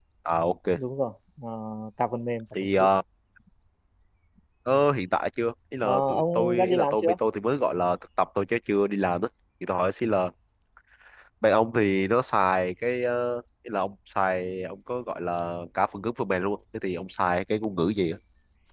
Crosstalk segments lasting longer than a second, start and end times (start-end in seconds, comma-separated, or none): 5.8-7.2